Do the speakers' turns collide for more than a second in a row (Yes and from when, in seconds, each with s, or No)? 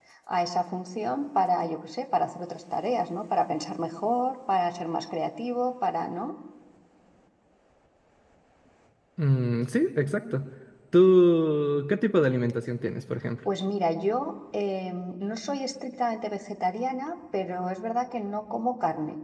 No